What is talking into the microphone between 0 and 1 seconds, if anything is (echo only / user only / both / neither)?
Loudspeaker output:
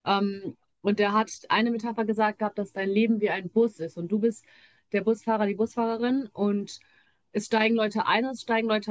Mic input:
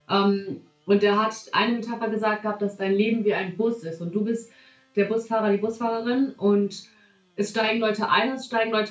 echo only